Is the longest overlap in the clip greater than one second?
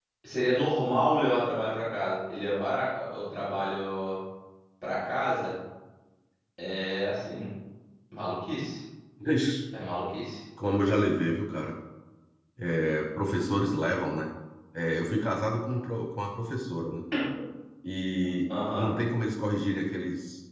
No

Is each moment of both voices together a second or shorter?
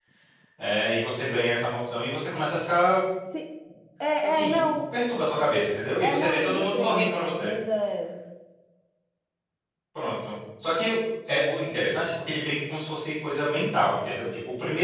No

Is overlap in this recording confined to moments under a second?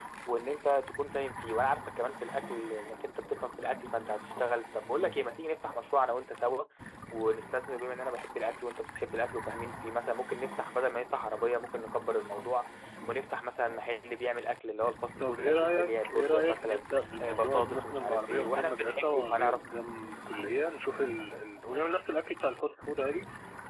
No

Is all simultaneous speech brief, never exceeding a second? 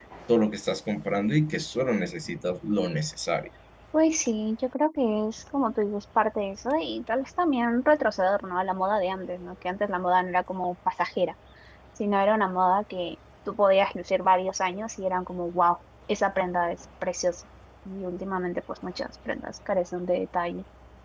Yes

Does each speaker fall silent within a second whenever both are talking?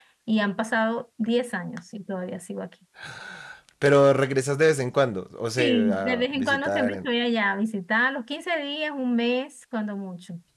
No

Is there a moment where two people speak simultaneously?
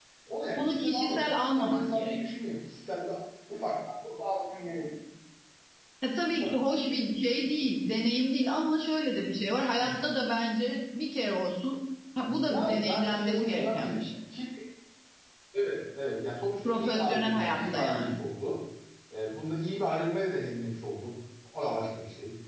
Yes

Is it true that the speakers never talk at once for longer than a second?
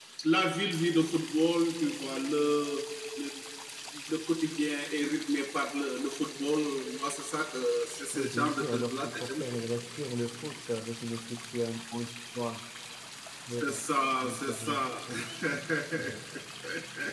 No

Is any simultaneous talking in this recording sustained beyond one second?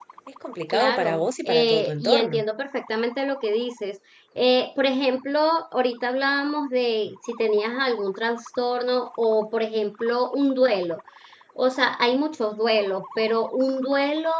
Yes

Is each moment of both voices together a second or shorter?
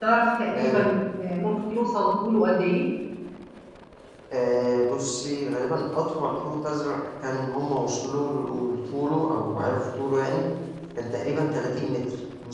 Yes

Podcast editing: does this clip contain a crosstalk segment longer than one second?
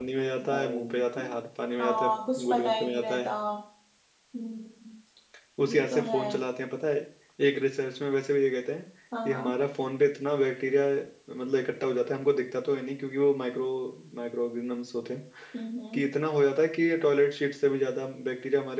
Yes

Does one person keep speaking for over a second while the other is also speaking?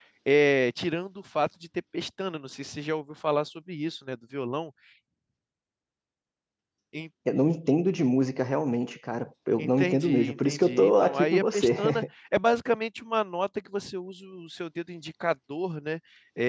Yes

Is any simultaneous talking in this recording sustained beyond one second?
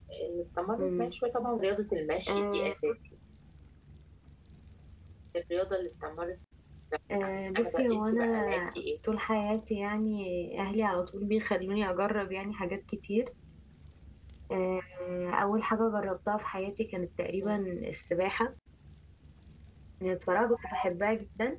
Yes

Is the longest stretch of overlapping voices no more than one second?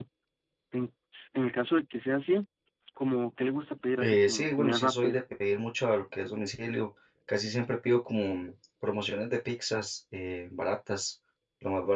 No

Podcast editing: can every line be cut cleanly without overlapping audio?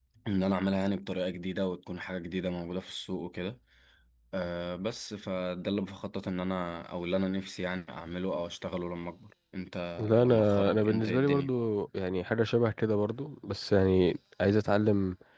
No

